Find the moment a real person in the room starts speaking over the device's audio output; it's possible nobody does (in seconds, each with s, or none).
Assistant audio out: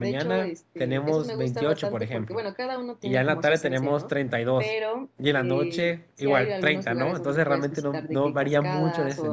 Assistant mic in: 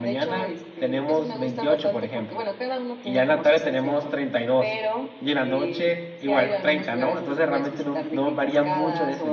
none